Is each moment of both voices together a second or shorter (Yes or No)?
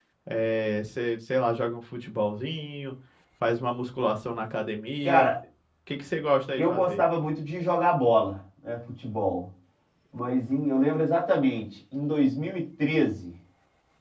Yes